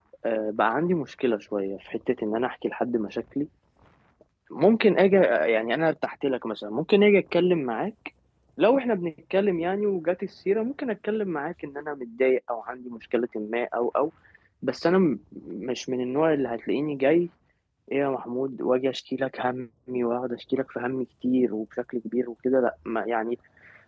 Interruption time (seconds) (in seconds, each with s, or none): none